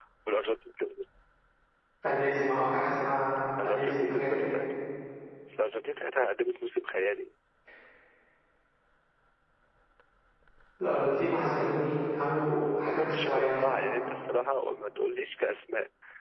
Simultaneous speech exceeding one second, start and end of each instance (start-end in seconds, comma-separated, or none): 3.0-4.4, 12.6-13.8